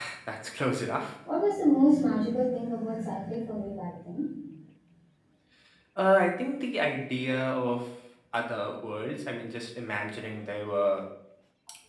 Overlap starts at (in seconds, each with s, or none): none